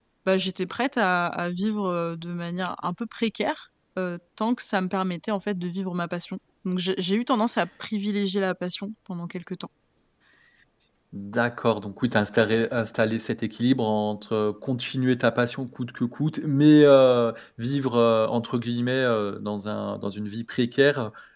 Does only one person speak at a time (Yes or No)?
Yes